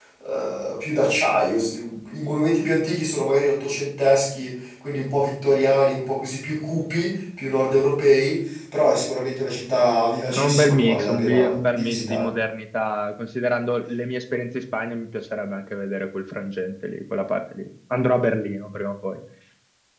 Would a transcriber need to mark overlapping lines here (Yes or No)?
Yes